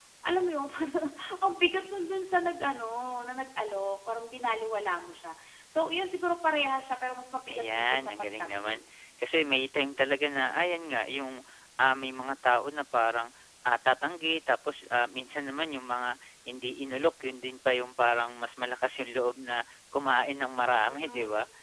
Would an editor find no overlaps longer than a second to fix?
No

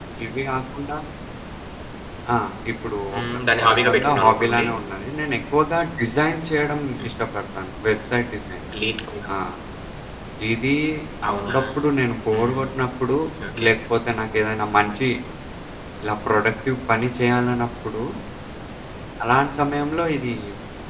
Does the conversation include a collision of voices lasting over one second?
Yes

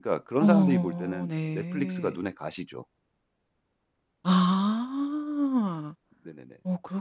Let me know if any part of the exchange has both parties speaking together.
Yes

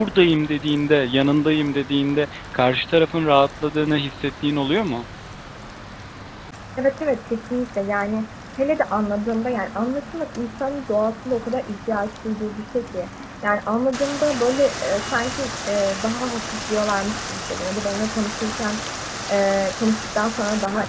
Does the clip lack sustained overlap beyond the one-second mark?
Yes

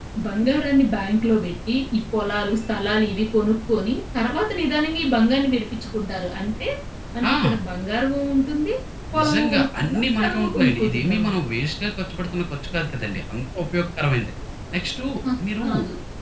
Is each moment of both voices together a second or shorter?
No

